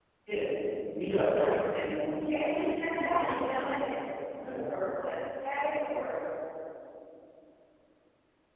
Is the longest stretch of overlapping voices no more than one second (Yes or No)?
No